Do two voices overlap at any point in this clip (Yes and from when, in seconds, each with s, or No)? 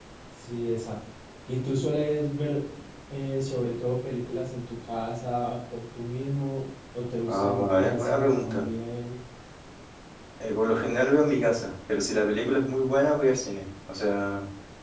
Yes, from 7.3 s